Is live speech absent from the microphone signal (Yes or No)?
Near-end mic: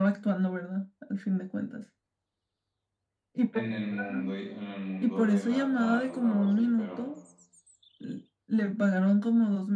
No